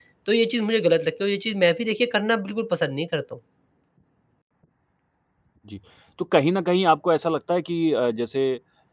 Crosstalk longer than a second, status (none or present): none